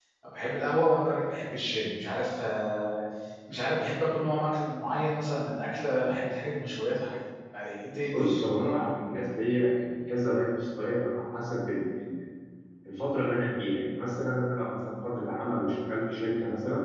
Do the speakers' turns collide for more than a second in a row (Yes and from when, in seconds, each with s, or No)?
No